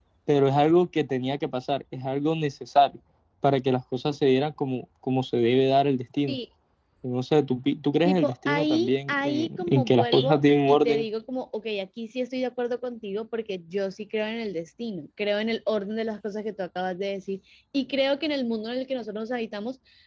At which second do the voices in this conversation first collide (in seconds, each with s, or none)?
8.1 s